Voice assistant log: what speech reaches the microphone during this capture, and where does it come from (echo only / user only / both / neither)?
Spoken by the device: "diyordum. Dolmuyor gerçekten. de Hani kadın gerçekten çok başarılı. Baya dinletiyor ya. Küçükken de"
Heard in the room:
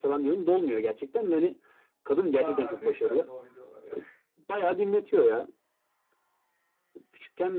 both